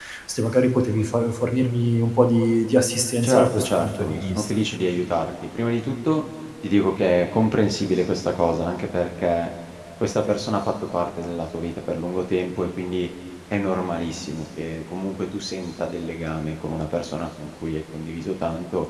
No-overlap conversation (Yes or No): No